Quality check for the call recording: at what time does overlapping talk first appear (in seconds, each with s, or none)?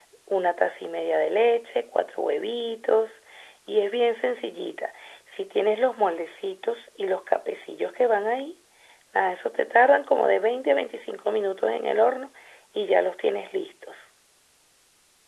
none